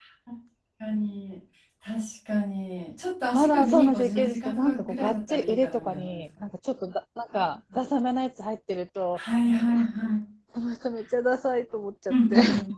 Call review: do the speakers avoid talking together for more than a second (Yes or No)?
No